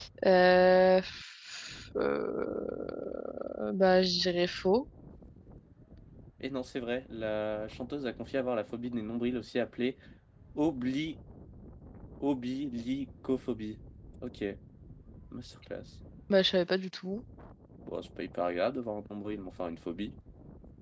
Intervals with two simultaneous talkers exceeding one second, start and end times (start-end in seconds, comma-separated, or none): none